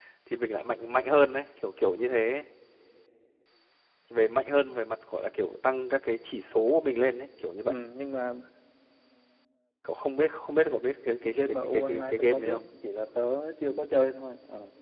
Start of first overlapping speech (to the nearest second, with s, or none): 11 s